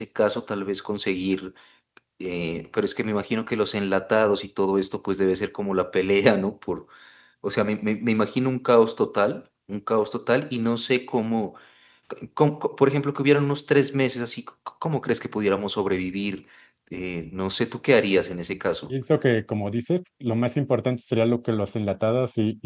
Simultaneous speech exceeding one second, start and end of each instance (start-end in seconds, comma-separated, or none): none